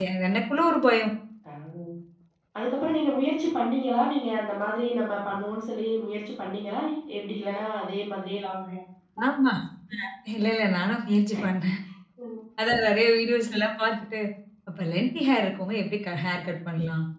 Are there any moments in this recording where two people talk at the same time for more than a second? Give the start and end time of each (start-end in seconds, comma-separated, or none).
none